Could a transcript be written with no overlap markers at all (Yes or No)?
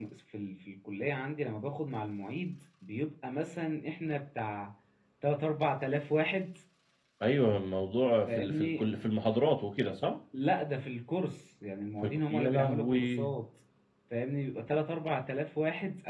No